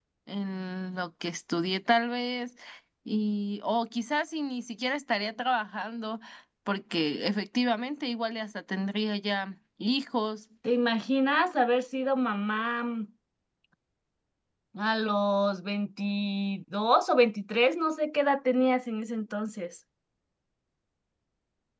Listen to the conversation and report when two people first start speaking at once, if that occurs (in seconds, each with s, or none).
none